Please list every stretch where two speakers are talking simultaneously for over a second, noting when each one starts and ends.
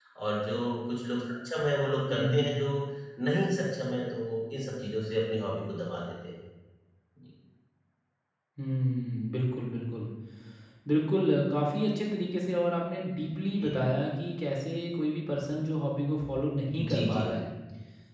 none

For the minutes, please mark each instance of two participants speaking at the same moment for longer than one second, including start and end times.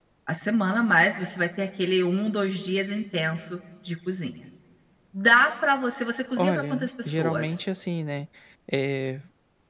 6.4-7.6

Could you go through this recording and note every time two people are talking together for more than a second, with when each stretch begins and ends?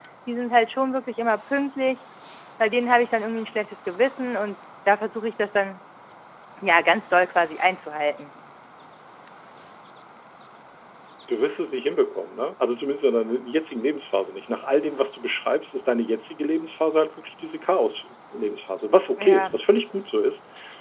none

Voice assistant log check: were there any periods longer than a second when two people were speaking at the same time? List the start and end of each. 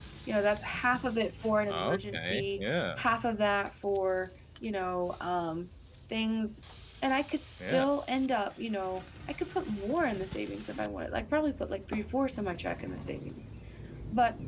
1.7-3.0

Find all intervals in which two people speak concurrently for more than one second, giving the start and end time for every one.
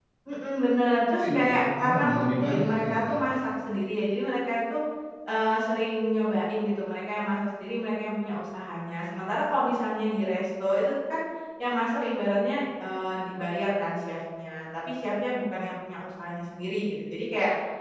1.2-3.2

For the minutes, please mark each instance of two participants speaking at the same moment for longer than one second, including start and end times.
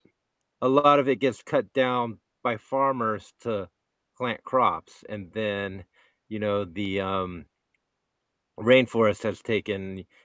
none

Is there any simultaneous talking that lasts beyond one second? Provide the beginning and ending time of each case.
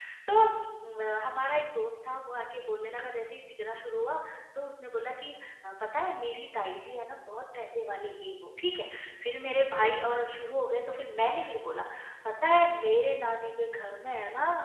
none

